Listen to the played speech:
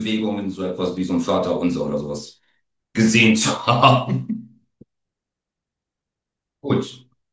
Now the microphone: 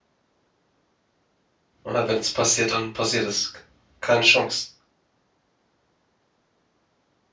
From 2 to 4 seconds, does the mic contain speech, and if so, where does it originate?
user only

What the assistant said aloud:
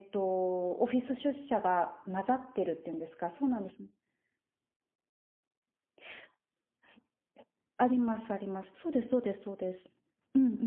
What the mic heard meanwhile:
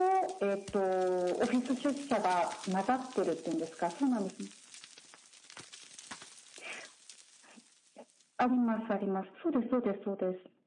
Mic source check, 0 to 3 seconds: echo only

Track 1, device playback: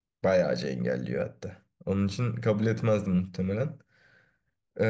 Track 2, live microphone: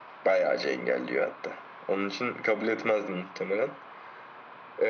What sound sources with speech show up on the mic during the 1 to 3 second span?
echo only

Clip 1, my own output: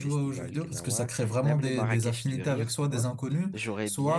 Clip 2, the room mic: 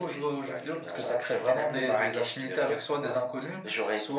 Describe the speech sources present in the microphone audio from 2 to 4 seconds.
echo only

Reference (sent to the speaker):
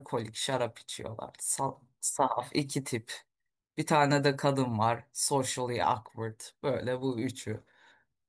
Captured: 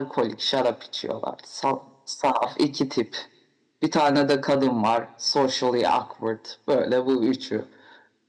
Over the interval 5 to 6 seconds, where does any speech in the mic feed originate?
echo only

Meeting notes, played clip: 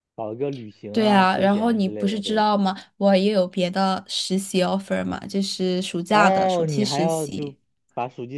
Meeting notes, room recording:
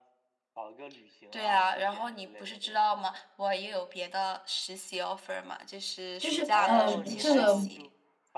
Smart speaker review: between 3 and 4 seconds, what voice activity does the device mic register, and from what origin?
echo only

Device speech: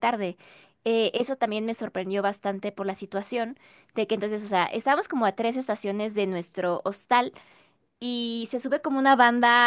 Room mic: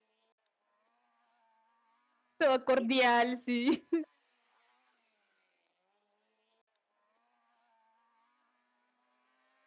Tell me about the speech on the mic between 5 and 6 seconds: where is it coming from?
neither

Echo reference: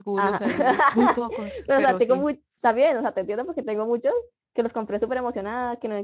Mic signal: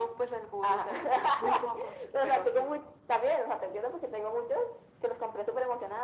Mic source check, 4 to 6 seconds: echo only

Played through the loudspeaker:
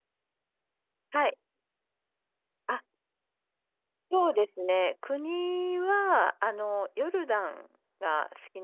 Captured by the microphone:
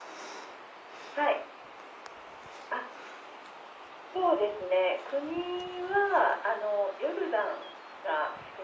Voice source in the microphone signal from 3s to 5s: echo only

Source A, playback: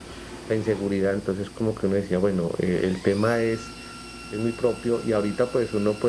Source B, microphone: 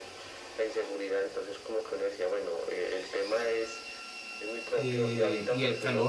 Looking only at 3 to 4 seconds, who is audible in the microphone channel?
echo only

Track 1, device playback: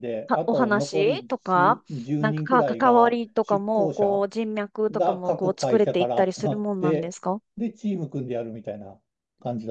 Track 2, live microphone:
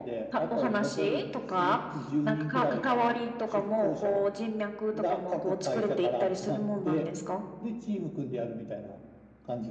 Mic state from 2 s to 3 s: echo only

